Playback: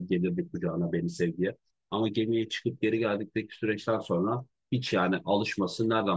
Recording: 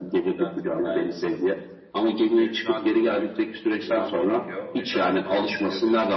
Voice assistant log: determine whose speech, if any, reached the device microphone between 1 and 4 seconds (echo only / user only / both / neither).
both